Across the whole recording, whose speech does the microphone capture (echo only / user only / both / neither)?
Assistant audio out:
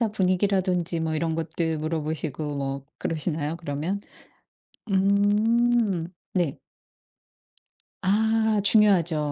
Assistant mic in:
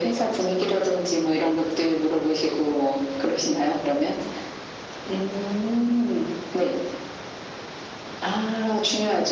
echo only